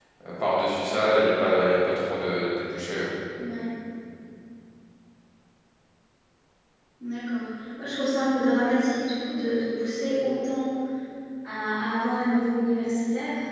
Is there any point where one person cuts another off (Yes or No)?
No